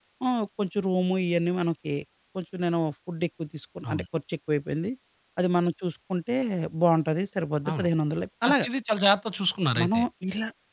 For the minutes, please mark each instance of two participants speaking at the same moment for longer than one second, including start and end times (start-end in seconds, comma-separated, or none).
none